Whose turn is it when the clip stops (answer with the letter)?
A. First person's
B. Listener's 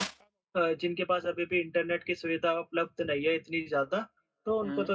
A